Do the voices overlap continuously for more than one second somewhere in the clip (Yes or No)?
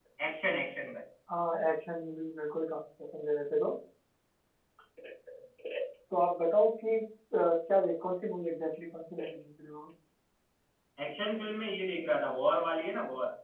No